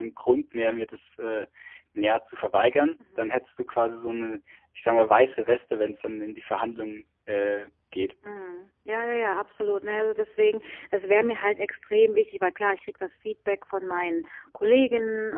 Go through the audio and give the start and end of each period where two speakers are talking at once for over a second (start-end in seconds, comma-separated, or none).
none